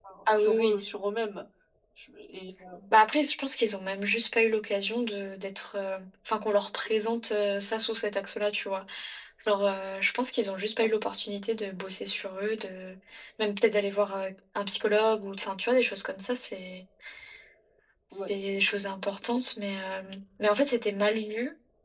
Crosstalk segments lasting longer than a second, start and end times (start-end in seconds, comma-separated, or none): none